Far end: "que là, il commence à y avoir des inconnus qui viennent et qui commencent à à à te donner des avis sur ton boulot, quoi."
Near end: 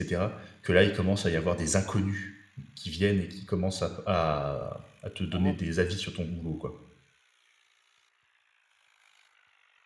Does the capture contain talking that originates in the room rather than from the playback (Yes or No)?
Yes